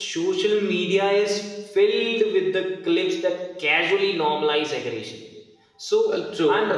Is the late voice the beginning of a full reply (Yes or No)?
No